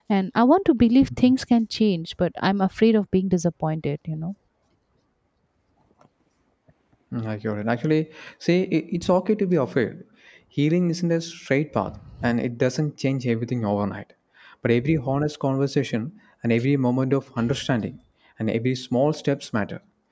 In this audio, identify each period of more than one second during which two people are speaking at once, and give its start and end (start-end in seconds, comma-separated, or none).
none